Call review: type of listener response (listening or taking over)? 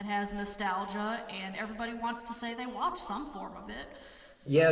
taking over